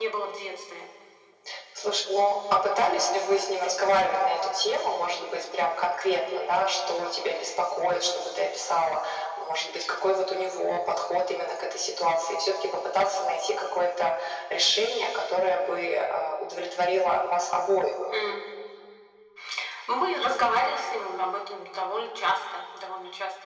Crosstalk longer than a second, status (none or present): none